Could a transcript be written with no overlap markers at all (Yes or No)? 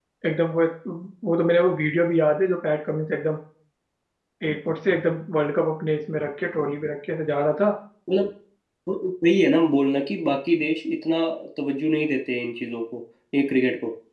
Yes